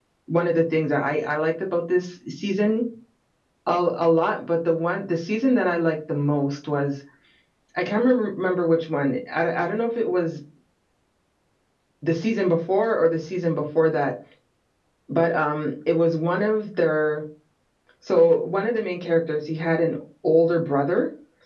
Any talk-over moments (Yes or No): No